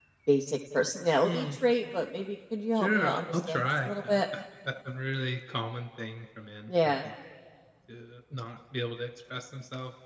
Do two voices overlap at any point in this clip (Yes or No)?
Yes